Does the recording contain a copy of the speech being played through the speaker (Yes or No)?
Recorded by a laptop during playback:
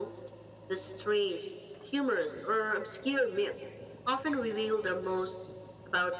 Yes